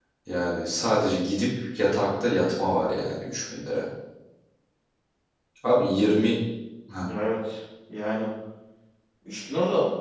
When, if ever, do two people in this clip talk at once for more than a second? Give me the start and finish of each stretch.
none

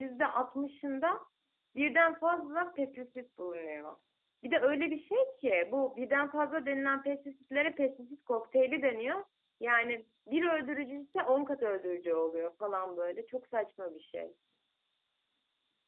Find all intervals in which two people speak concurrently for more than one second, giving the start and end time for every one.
none

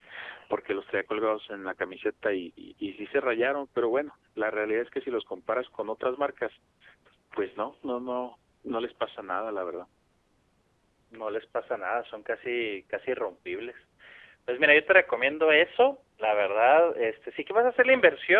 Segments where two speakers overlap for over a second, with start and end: none

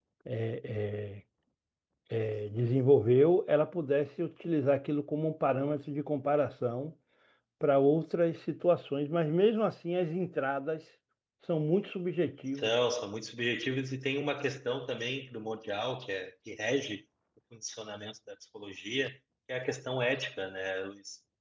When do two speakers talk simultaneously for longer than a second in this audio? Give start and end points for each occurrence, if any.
none

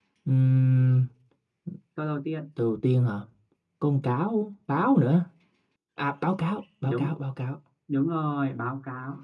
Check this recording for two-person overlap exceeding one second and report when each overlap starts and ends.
none

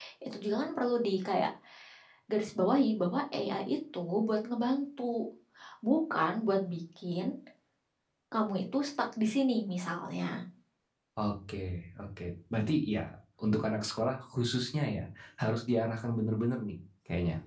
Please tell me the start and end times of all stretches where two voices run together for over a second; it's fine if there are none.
none

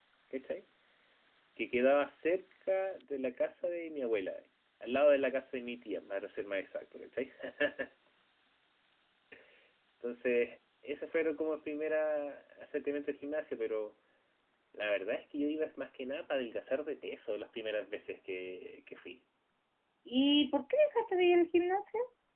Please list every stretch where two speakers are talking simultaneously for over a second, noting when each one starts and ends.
none

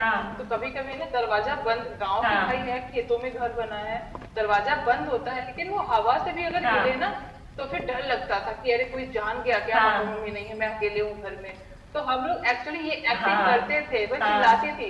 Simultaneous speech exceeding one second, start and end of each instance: none

